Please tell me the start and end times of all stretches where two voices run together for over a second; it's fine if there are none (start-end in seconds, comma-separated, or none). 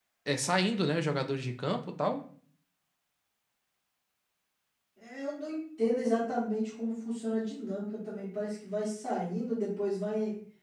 none